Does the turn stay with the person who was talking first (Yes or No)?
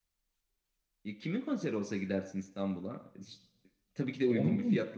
Yes